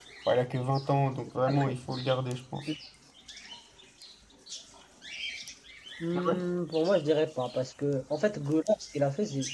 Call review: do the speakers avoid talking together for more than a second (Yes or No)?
Yes